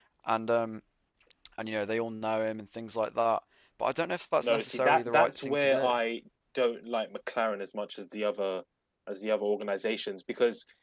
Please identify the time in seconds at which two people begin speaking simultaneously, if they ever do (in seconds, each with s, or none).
4.4 s